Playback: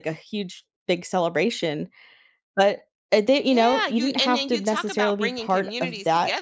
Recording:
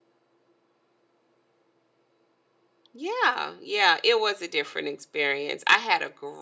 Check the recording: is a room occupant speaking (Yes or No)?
Yes